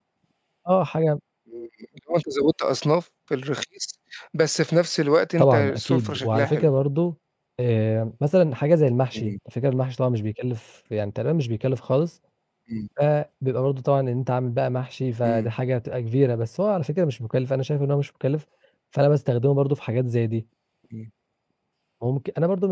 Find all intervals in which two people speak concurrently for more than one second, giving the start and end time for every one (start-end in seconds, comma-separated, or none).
5.4-6.7